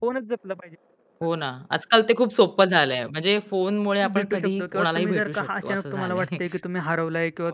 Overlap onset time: 4 s

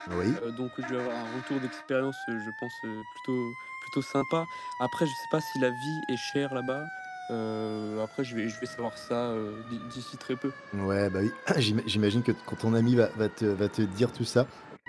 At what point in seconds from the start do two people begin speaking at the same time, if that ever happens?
none

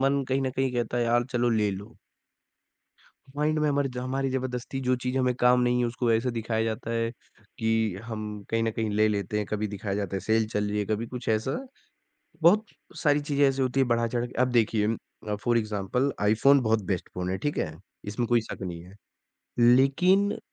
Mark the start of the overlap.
none

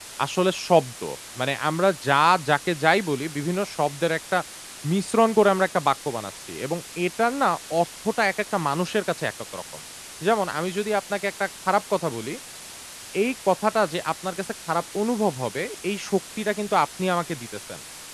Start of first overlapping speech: none

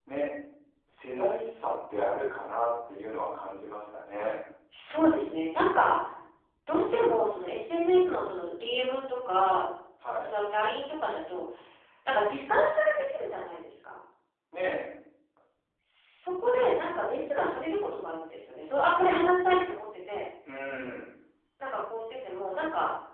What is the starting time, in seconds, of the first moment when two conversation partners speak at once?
none

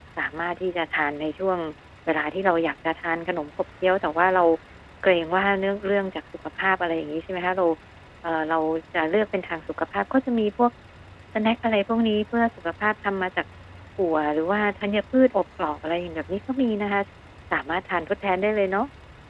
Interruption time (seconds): none

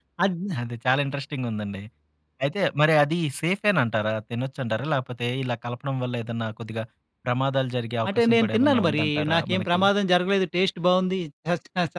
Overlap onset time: 8 s

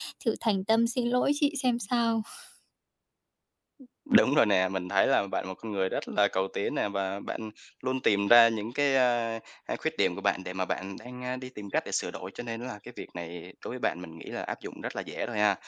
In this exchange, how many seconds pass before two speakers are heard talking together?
none

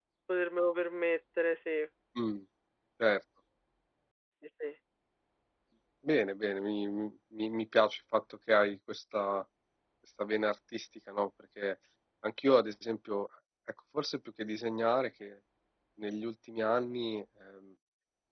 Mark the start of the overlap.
none

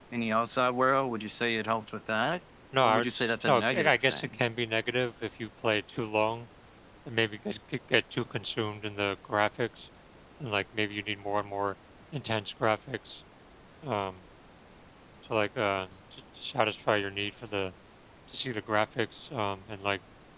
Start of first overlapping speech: 3 s

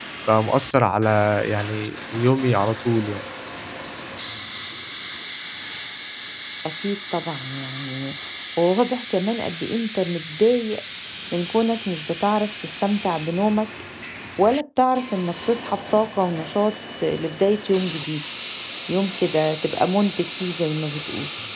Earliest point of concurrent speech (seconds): none

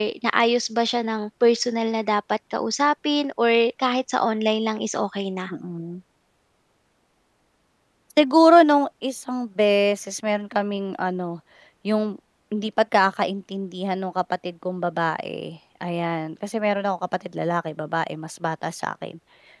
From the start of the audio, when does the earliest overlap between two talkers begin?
none

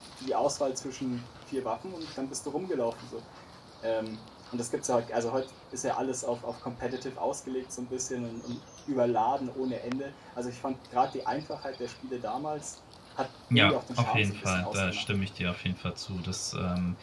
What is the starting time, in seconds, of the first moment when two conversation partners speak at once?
14 s

